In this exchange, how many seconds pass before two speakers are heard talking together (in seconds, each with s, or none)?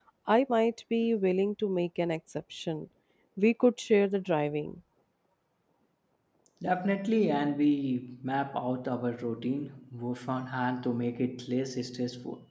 none